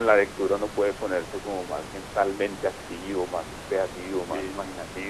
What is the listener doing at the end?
taking over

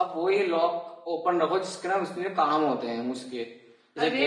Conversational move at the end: taking over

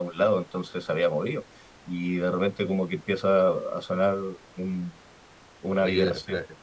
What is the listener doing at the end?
taking over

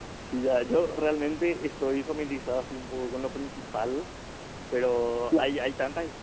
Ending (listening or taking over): listening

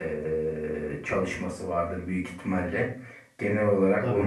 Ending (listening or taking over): listening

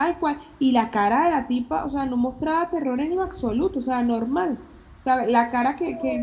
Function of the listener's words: listening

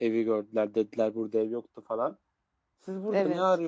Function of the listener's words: listening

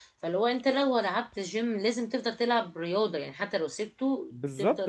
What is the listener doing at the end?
taking over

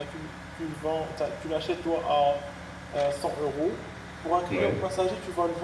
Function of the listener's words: listening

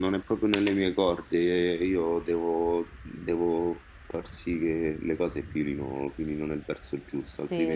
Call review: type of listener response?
taking over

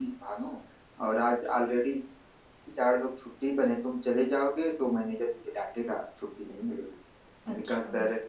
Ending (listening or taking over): listening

